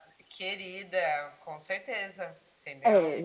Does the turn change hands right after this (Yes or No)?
Yes